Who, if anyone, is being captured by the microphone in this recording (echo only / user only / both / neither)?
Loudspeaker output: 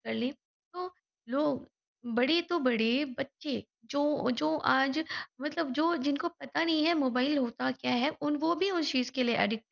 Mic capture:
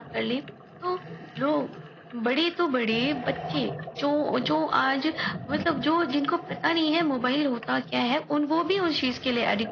echo only